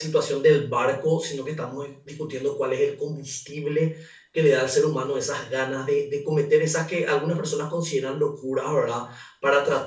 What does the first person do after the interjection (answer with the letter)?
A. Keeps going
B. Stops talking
A